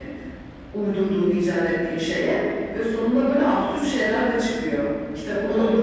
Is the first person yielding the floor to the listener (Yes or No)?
Yes